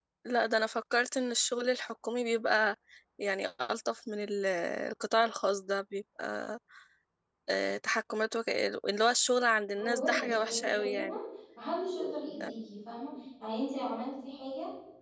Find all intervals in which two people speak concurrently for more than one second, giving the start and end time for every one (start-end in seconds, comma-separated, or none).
9.8-11.1